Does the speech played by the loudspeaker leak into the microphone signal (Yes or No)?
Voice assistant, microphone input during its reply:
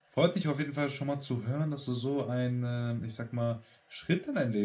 No